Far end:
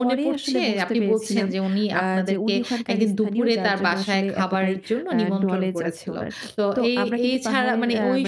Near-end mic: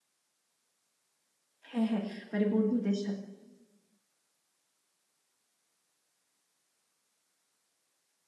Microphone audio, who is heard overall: user only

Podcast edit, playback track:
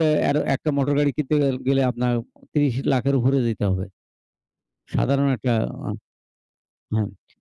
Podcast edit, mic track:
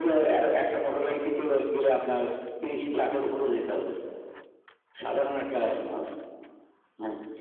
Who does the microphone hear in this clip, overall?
echo only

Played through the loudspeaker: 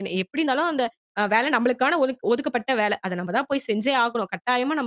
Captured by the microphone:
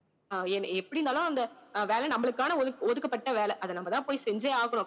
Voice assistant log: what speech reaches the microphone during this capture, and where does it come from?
echo only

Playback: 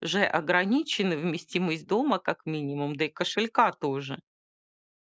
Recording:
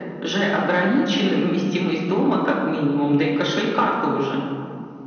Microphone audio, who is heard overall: echo only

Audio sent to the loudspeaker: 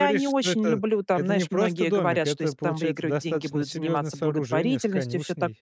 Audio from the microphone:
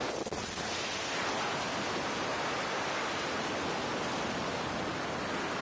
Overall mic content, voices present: neither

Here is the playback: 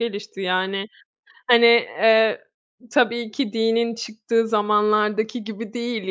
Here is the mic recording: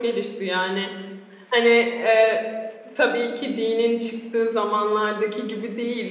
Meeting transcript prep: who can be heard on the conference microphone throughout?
echo only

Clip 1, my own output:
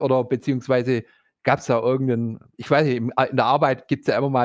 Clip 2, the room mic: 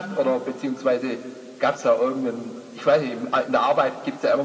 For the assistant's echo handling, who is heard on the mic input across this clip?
echo only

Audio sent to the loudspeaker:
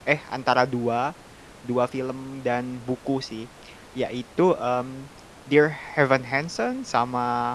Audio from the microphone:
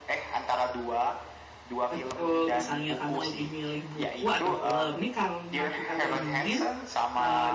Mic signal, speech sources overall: both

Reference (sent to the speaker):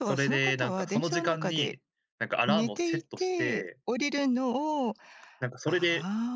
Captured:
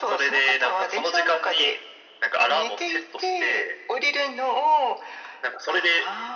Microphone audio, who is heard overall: echo only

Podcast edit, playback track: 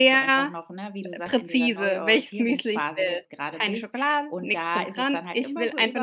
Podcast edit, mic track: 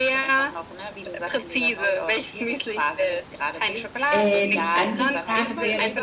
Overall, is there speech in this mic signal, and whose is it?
both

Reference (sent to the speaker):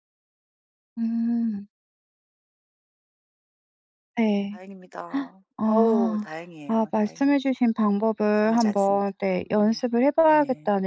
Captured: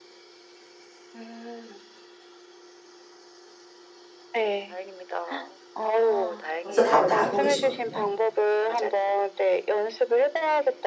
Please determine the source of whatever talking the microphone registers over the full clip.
both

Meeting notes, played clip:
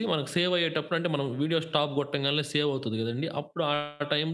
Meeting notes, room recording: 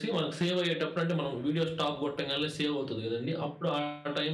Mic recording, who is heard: echo only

